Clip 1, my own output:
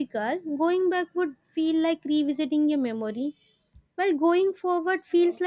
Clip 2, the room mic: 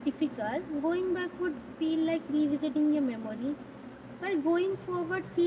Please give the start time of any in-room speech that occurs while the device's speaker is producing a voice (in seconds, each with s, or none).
none